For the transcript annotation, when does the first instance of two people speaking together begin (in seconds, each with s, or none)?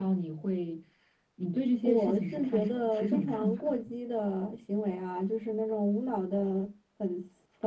1.8 s